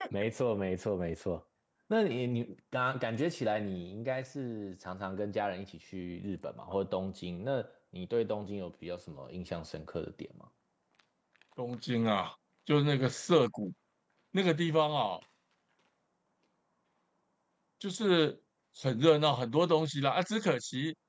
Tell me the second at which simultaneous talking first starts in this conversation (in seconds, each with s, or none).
none